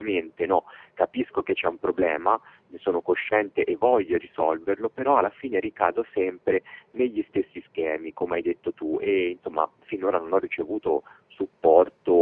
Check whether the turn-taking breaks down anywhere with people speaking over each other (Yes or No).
No